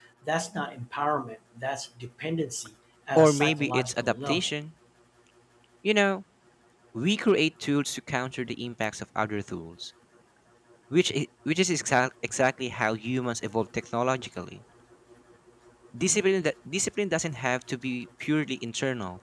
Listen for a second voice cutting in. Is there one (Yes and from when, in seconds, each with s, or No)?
Yes, from 3.2 s